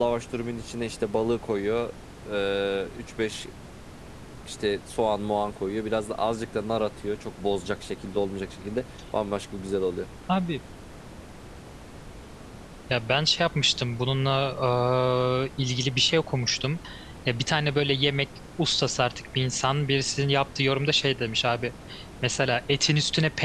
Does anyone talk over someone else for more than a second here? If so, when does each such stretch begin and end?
none

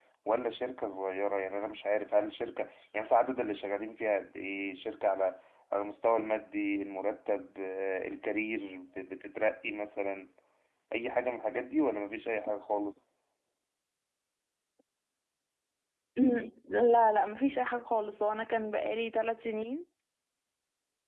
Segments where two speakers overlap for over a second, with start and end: none

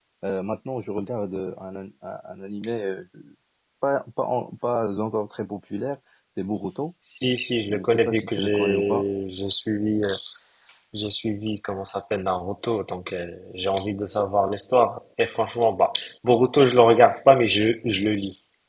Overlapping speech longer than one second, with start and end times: 7.7-9.1

